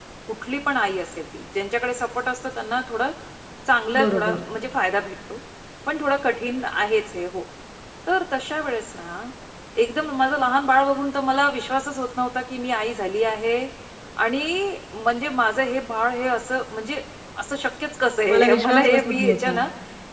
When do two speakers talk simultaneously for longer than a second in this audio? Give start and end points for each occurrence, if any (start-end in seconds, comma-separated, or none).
18.3-19.6